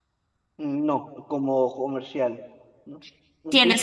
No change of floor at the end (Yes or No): No